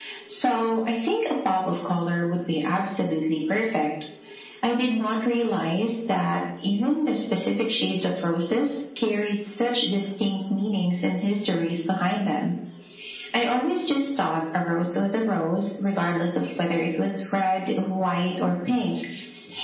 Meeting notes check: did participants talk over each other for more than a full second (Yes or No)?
No